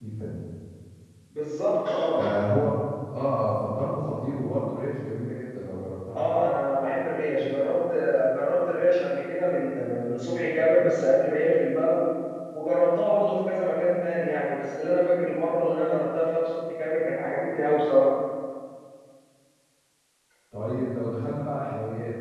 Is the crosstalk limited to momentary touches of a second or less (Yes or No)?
Yes